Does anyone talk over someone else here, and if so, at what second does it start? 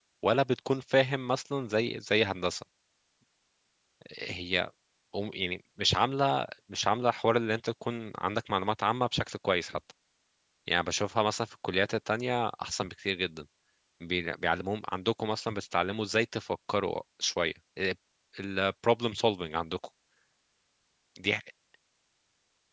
none

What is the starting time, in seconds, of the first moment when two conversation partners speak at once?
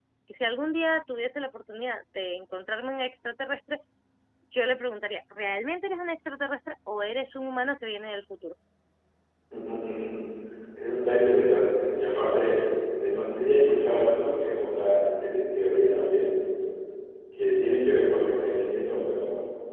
none

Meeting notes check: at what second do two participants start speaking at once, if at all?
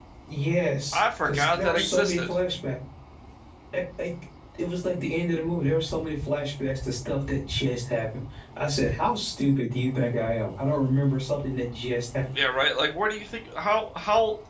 0.9 s

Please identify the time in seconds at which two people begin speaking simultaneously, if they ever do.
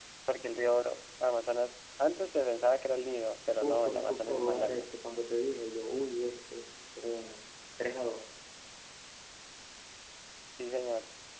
3.6 s

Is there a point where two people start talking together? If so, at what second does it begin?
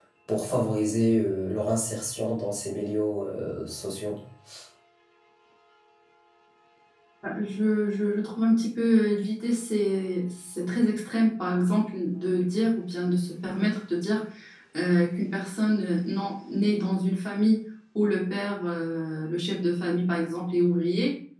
none

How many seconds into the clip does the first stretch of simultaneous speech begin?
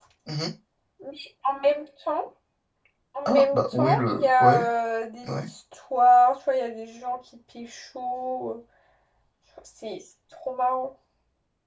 3.2 s

